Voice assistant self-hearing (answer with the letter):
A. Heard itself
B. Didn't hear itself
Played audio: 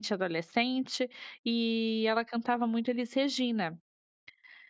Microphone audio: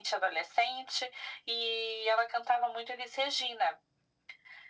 A